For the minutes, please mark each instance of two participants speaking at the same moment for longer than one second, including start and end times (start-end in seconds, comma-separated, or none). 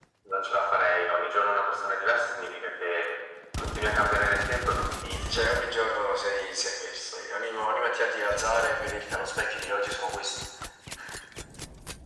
none